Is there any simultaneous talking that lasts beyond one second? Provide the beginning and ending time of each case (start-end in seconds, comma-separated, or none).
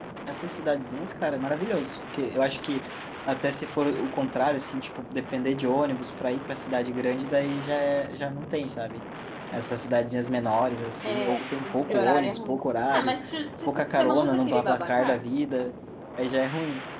11.0-12.6, 13.7-15.2